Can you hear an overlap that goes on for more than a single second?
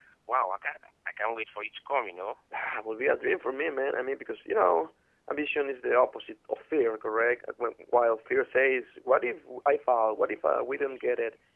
No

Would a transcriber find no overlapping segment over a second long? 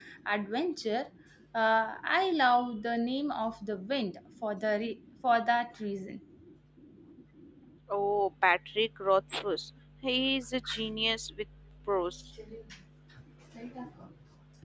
Yes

